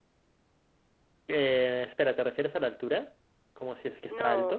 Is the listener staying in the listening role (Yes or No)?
No